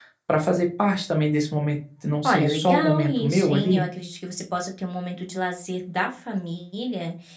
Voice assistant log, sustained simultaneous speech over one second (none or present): present